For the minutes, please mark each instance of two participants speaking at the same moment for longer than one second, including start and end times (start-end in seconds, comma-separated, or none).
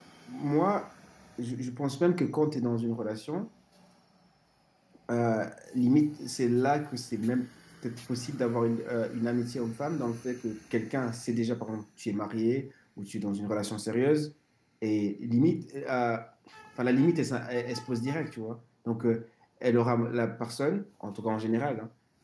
none